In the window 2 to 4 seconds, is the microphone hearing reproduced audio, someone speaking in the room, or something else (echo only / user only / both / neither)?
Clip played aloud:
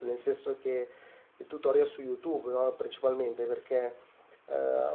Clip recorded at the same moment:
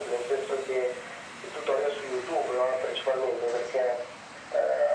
echo only